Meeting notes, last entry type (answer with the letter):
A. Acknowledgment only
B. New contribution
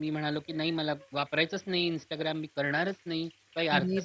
A